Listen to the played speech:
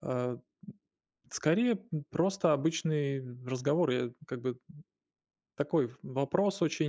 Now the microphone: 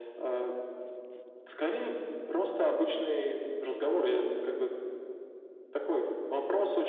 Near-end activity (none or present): none